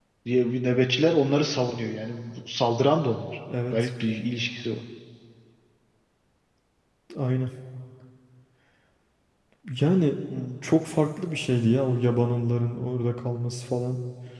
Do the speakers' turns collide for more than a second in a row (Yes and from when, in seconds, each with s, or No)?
No